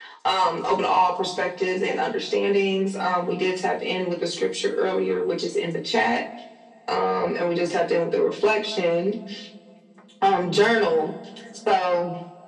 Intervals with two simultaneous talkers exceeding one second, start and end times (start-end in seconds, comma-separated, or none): none